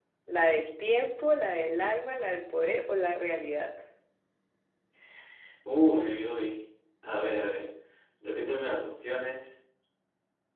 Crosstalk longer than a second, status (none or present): none